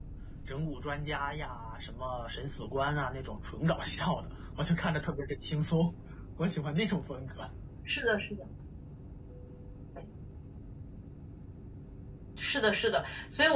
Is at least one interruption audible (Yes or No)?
No